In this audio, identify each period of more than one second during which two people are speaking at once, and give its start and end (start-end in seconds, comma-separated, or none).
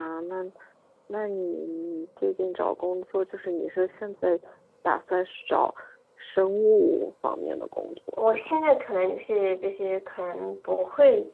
none